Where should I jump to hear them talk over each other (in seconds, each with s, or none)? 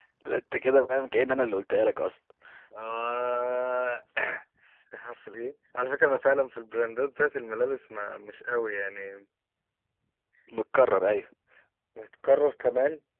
none